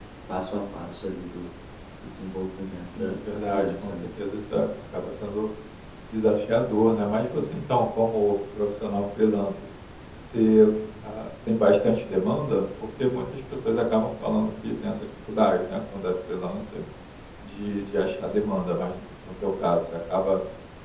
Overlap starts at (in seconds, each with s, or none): 2.7 s